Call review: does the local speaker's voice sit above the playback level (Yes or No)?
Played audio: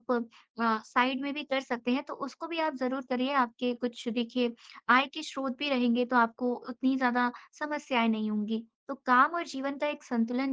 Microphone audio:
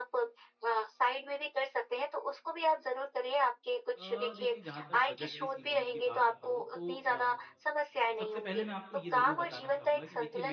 No